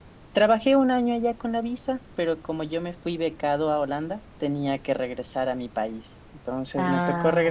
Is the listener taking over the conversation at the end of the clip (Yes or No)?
No